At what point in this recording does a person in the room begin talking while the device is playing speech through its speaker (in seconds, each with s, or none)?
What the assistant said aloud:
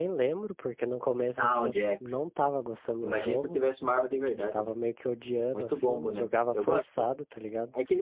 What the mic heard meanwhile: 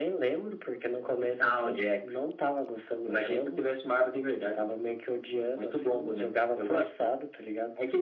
none